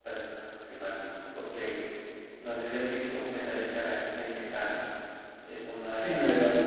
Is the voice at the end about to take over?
Yes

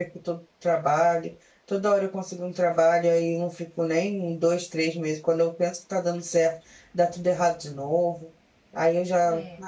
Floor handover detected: No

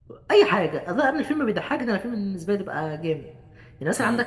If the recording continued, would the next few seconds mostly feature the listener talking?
Yes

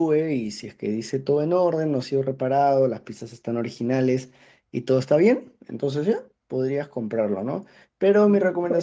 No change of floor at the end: Yes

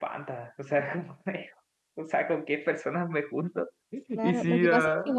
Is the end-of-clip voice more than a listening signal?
Yes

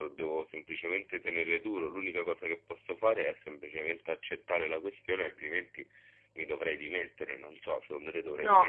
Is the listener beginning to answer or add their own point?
Yes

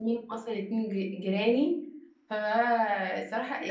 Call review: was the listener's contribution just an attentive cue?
No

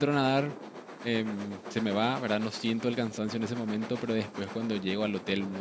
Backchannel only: Yes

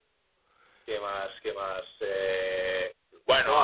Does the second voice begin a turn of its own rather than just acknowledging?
No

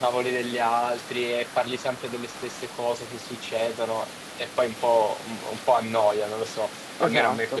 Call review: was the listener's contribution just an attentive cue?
No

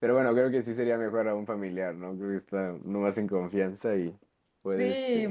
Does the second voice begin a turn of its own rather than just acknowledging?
Yes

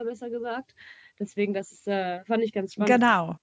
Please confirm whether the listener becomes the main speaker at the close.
No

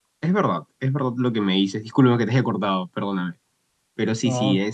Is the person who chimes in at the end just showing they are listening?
Yes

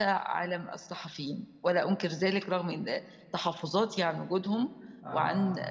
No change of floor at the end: Yes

